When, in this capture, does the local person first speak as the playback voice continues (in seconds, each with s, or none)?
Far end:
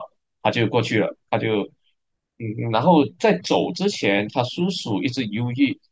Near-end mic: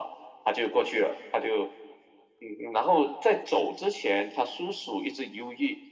none